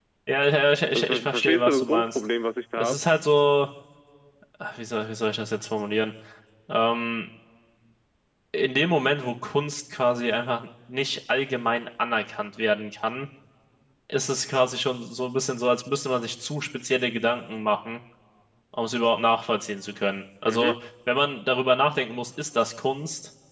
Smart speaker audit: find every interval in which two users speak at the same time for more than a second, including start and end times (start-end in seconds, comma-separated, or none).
0.9-2.2